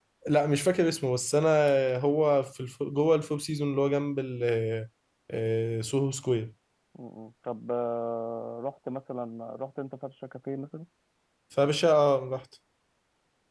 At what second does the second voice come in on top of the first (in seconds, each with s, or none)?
none